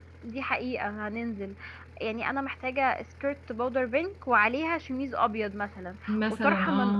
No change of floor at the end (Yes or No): Yes